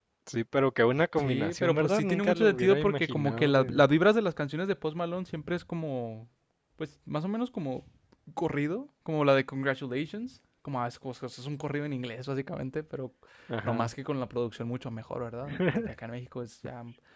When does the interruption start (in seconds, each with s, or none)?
1.2 s